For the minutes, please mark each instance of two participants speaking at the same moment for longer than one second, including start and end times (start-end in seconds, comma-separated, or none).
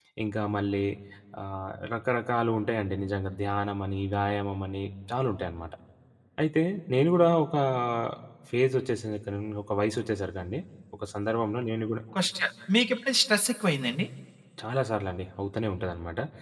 none